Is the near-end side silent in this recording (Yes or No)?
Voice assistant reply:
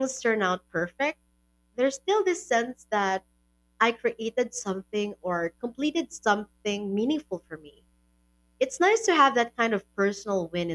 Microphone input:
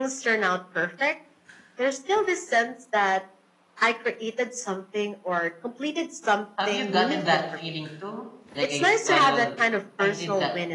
No